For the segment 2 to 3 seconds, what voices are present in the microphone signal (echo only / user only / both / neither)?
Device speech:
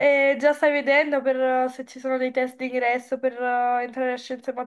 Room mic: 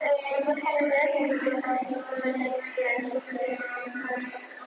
echo only